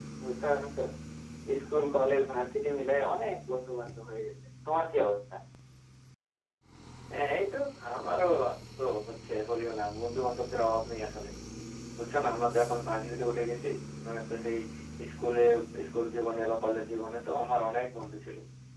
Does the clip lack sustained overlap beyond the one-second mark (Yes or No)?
Yes